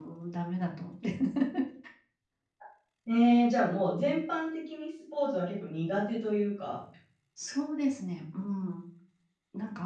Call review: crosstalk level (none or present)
none